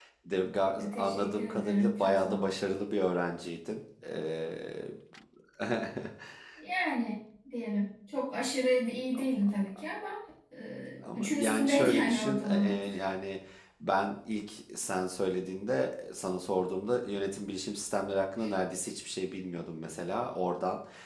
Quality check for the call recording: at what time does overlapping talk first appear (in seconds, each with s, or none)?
0.8 s